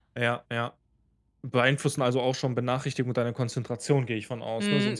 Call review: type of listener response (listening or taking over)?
taking over